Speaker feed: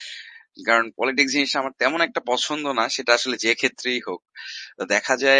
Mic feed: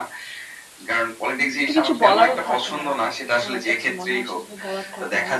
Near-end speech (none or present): present